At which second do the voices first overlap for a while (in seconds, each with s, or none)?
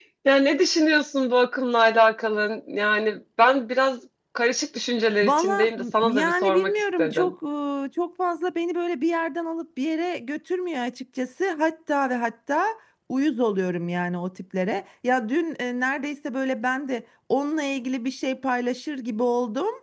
5.2 s